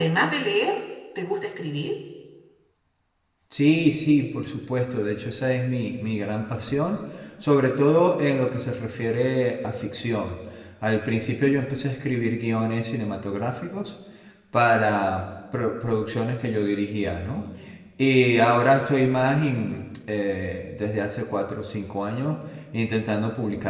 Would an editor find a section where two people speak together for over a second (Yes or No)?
No